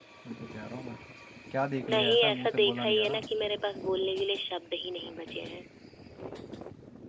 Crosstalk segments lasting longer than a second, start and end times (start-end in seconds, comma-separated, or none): 1.9-3.2